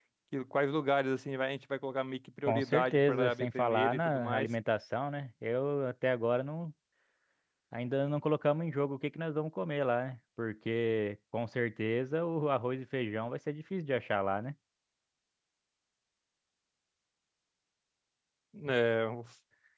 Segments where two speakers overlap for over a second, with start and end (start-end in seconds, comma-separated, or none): 2.5-4.5